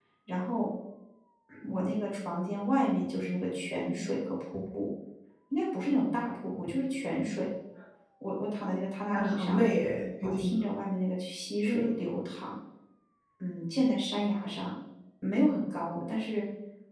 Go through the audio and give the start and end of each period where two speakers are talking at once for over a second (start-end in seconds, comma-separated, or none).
none